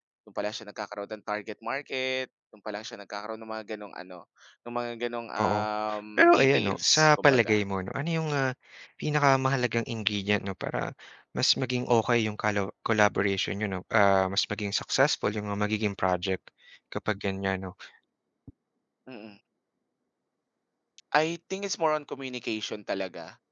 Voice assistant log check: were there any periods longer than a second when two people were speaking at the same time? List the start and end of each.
6.2-7.6

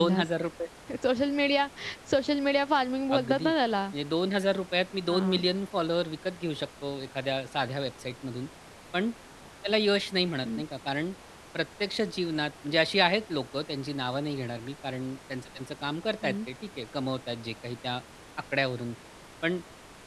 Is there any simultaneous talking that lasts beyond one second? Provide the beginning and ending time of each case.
none

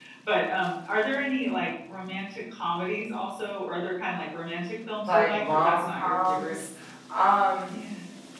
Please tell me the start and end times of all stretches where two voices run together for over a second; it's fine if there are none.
5.1-6.5

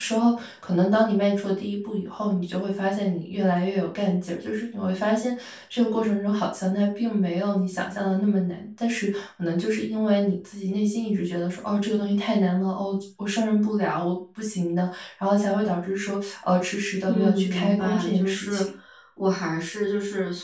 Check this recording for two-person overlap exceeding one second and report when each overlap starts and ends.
17.1-18.6

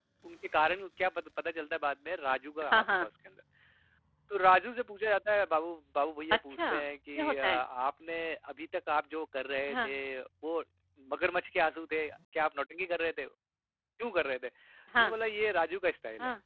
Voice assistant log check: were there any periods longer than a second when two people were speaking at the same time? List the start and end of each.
none

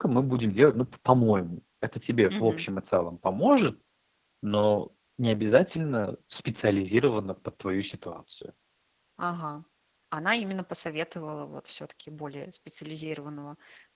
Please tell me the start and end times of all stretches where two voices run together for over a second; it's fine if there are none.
none

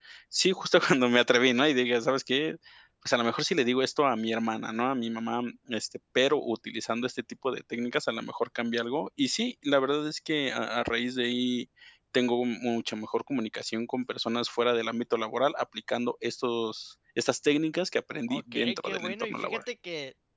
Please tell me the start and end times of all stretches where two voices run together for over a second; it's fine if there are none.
18.3-19.6

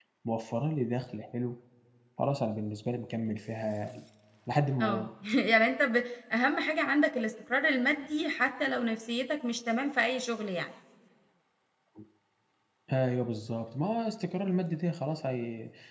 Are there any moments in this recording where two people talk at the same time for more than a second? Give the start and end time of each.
none

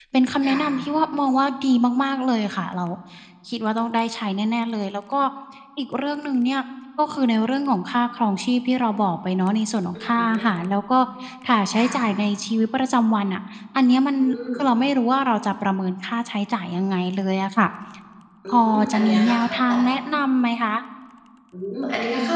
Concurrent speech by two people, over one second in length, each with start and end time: 18.5-19.7

